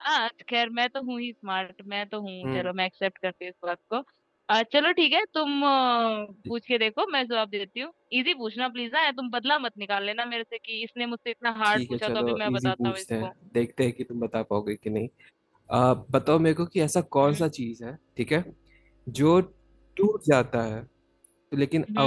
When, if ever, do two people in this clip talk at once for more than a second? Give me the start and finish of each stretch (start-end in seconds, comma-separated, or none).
11.6-13.3